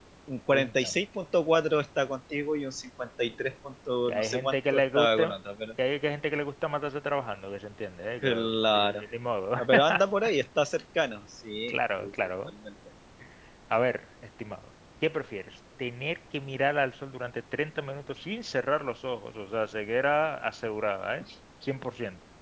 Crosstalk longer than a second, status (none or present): present